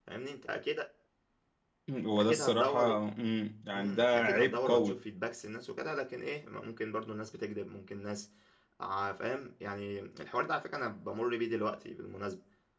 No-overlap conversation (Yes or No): No